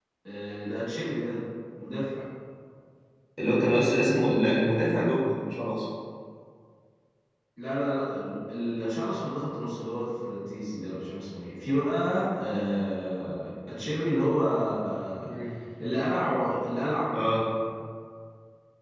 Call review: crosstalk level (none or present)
none